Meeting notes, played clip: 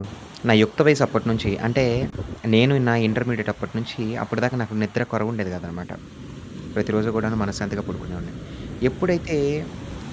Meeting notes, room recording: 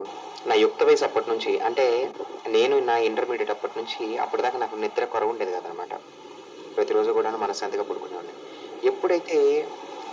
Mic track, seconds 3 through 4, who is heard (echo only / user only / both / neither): echo only